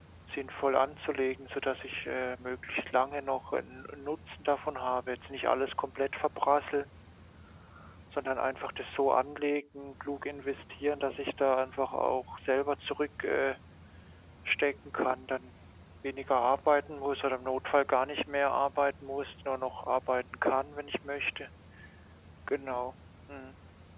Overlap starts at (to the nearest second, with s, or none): none